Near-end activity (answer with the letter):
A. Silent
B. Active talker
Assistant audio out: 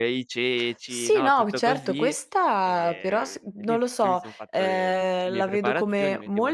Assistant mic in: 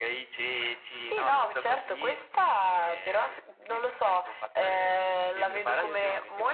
B